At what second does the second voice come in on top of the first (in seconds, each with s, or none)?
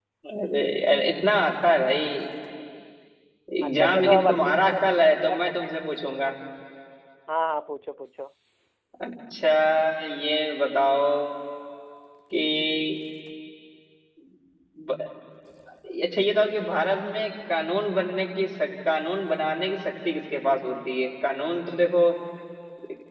3.6 s